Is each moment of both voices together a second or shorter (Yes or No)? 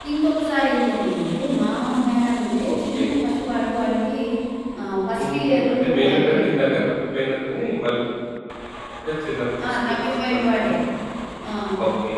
No